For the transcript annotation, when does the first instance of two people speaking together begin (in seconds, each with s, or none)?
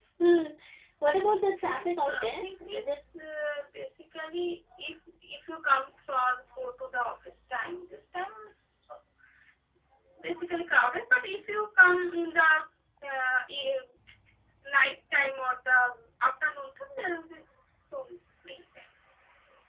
1.6 s